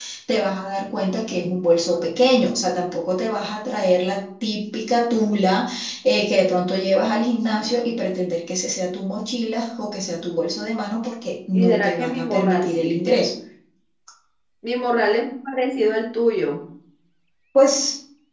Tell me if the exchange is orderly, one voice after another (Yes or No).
No